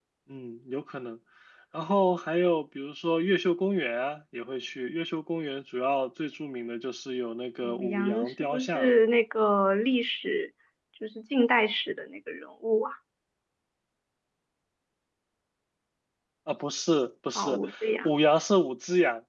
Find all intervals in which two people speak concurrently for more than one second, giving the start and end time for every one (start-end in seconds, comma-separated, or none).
7.6-8.9